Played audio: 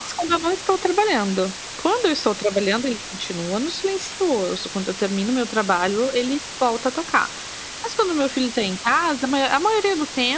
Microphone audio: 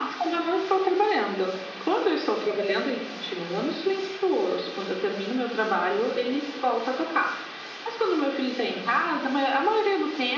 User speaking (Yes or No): No